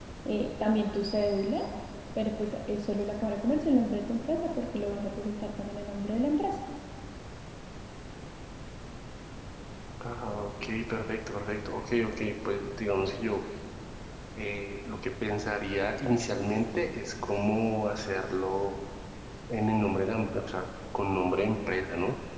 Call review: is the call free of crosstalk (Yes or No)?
Yes